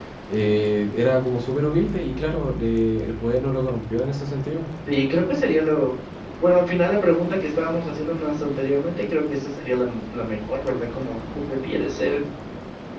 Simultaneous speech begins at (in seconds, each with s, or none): none